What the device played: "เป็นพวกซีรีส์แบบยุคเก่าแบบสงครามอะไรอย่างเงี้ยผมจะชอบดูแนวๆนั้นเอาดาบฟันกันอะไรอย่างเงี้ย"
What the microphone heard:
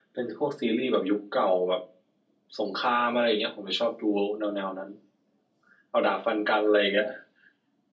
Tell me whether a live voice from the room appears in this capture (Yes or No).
No